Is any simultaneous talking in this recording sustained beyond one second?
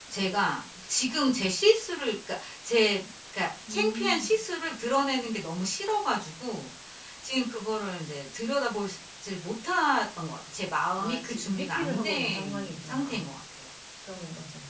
Yes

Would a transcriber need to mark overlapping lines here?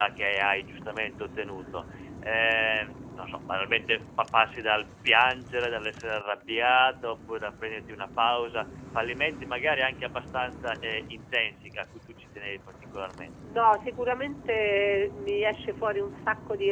No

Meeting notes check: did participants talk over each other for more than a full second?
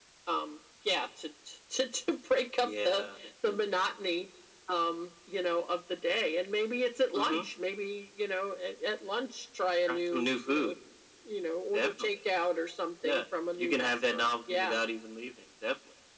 Yes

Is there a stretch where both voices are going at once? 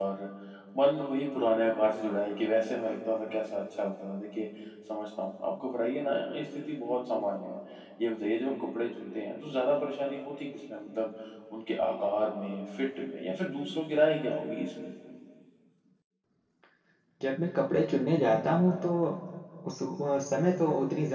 No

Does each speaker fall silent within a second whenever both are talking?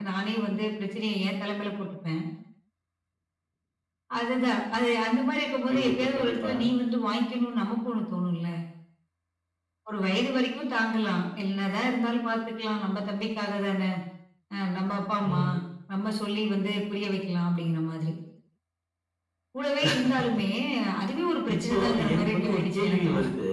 No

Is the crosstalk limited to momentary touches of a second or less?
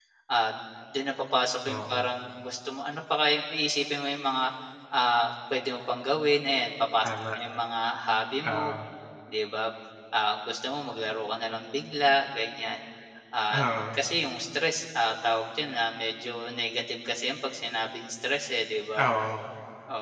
Yes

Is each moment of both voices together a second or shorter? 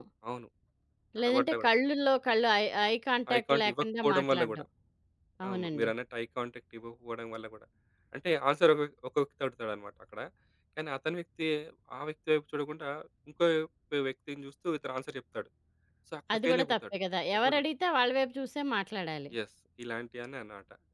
No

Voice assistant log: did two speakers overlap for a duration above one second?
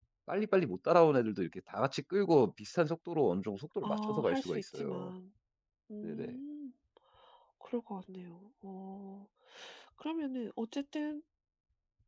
Yes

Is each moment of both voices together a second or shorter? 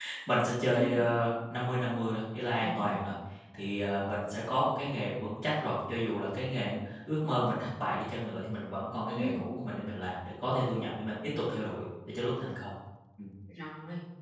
Yes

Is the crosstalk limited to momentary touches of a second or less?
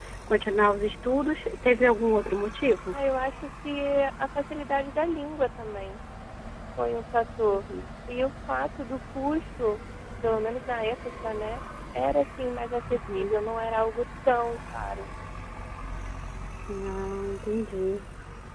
Yes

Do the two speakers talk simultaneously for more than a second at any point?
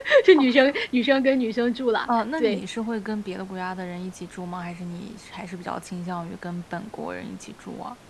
No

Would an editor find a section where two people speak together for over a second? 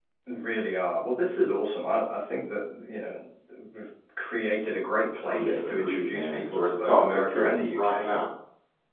Yes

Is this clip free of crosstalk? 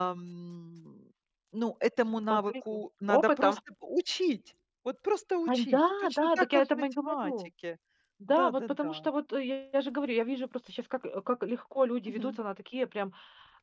No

